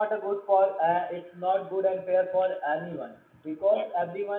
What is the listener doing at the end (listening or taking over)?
listening